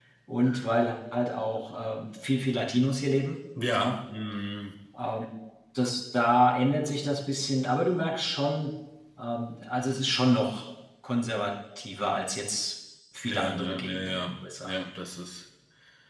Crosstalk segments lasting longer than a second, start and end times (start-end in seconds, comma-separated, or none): 13.2-14.8